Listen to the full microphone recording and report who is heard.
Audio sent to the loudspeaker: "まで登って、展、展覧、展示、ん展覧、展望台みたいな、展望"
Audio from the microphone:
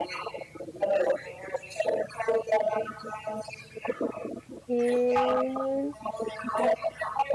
both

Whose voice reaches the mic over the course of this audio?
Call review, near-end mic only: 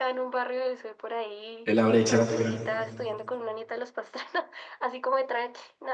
both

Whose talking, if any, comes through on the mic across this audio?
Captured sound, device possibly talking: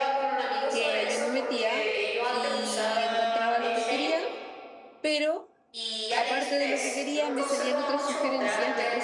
both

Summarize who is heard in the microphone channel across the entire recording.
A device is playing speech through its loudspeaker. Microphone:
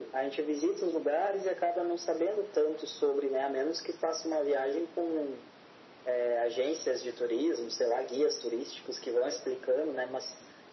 echo only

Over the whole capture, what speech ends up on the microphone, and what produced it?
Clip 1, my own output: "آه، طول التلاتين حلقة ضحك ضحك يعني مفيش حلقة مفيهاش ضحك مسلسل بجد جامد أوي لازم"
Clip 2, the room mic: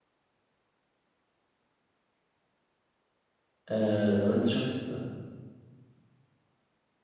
user only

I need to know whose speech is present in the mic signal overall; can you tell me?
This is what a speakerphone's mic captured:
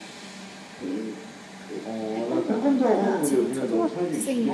both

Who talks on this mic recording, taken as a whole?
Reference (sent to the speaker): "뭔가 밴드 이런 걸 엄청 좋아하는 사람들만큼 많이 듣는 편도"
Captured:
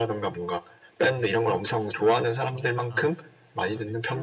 both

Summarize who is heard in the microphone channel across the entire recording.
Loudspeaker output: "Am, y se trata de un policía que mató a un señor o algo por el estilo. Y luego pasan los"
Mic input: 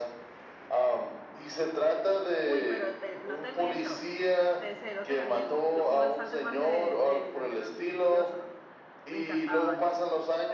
both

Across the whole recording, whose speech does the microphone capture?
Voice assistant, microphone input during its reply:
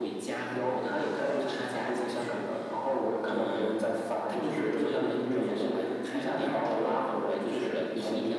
echo only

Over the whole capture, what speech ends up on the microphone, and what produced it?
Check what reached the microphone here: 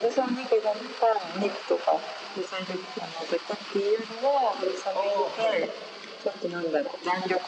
both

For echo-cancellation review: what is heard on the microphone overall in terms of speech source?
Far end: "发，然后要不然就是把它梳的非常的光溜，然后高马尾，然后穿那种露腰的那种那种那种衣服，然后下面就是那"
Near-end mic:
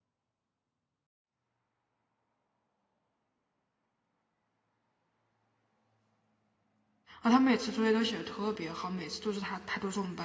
user only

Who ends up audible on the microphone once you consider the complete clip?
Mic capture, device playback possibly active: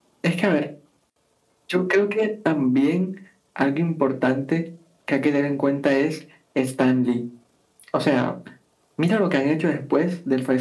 echo only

